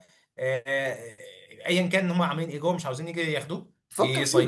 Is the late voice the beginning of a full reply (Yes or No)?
Yes